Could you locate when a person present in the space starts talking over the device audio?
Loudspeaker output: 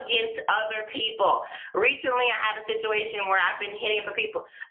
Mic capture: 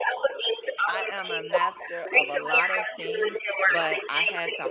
1 s

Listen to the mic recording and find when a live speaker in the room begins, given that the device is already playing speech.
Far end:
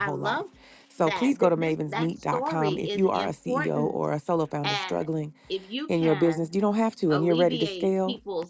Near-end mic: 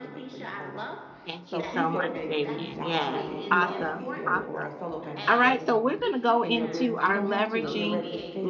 1 s

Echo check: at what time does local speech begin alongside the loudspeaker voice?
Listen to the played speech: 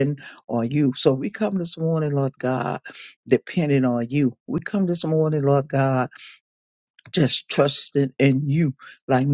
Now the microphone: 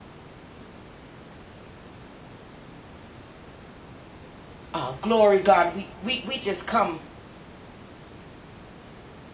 5 s

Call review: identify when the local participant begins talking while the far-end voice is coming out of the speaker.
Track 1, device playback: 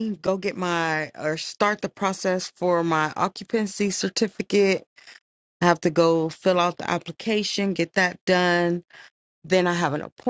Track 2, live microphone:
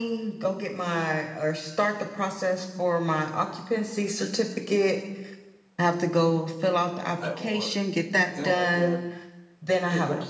7 s

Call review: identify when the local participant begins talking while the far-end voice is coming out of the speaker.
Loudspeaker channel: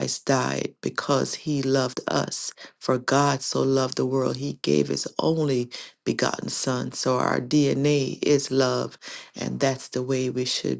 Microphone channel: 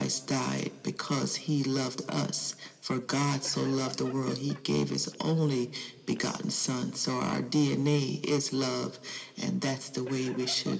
none

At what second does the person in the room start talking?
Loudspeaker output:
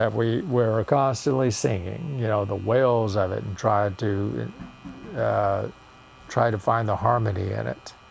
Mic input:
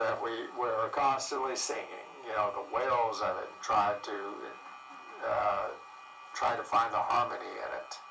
none

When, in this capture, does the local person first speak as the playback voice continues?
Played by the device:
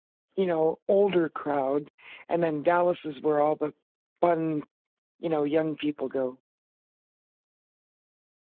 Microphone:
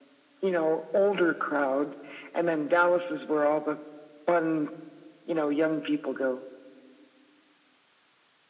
none

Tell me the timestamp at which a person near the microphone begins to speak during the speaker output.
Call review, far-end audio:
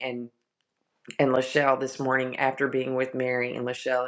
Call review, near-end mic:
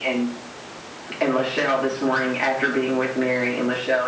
none

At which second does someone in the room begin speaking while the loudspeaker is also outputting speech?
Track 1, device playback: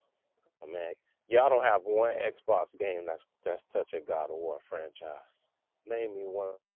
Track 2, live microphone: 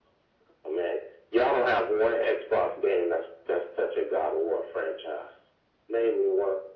none

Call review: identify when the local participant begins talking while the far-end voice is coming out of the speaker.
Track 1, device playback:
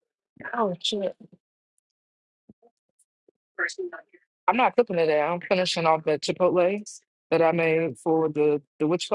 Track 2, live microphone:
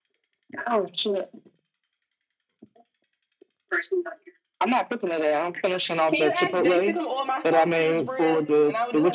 6 s

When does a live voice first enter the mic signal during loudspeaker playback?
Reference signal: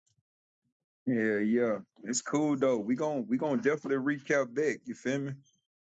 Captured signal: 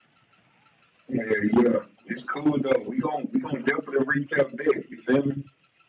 none

